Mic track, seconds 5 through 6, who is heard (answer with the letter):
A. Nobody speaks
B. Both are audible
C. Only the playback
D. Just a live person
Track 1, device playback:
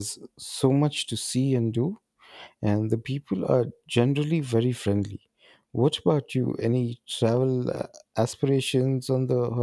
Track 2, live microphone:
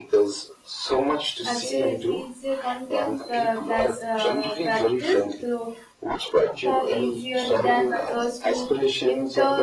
B